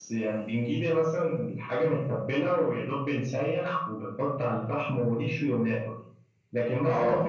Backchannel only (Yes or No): Yes